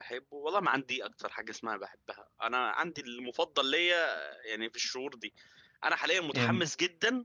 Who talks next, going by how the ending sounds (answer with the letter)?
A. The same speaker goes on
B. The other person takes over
A